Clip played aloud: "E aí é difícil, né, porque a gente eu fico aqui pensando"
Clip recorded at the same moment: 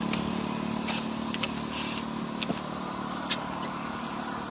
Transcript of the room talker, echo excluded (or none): none